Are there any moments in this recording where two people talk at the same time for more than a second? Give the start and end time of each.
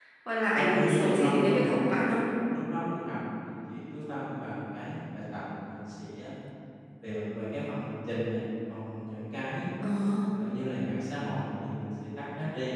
0.5-2.1

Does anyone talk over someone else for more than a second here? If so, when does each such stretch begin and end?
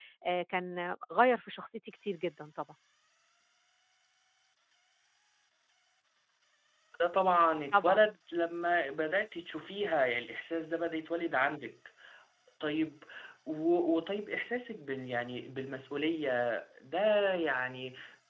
none

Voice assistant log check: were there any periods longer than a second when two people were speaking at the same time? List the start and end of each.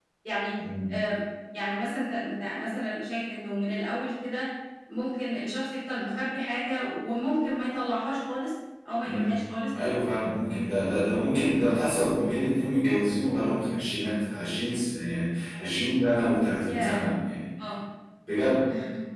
none

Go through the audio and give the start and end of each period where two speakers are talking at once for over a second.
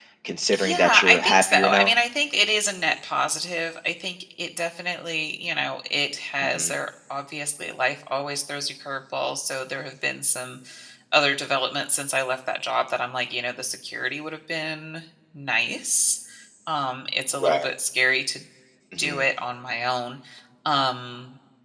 0.5-1.9

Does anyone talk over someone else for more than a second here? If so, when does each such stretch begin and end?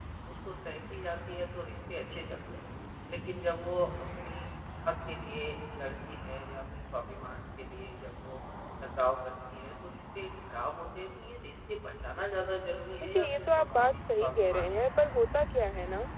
13.0-15.2

